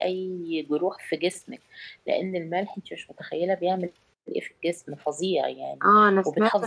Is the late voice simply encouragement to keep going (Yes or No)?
No